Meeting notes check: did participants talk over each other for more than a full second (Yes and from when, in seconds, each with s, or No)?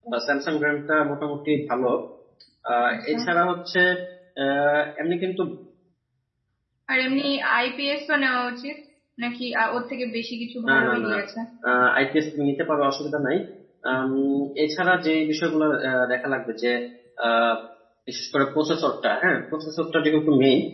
No